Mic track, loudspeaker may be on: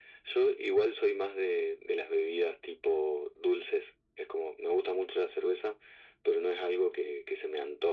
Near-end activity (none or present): none